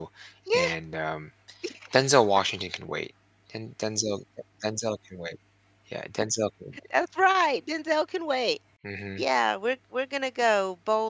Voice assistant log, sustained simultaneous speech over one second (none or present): none